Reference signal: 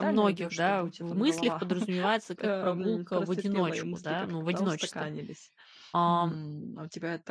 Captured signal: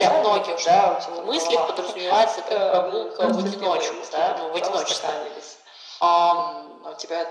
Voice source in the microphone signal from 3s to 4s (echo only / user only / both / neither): both